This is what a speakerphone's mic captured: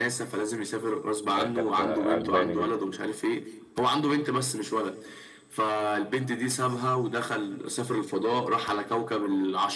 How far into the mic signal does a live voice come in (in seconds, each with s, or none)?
1.3 s